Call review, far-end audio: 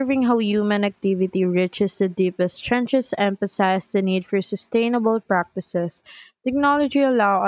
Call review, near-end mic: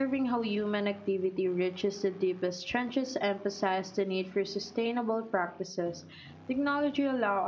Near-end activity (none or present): none